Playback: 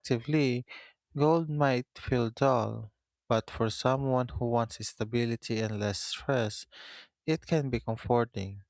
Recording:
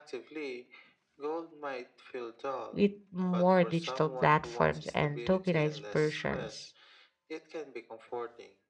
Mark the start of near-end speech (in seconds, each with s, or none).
2.7 s